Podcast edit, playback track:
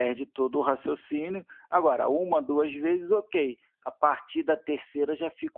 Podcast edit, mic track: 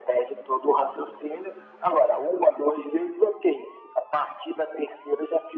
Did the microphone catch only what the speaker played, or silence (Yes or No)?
Yes